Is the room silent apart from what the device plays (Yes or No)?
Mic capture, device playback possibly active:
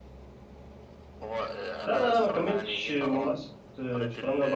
No